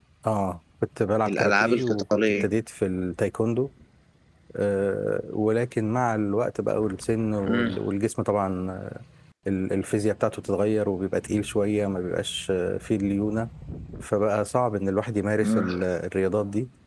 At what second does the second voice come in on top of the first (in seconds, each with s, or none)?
1.3 s